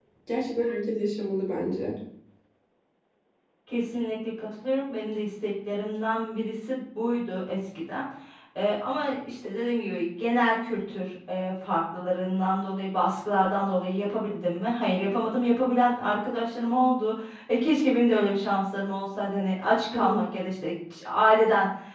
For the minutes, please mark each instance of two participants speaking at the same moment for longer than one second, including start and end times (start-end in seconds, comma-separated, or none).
none